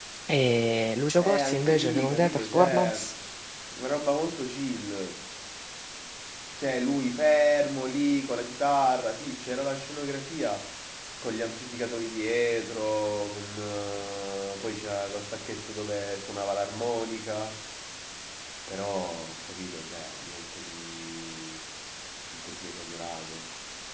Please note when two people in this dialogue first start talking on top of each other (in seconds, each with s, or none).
1.2 s